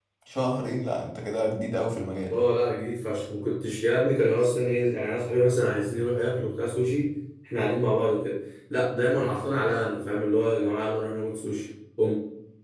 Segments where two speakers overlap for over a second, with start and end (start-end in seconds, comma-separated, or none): none